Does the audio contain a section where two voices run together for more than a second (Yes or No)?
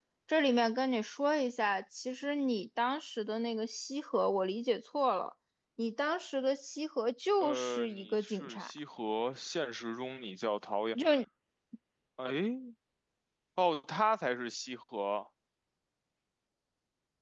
Yes